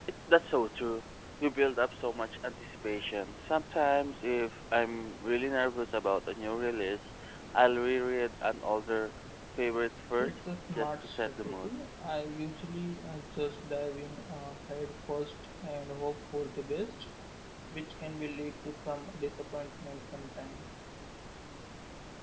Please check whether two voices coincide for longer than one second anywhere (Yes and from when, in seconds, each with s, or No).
Yes, from 10.2 s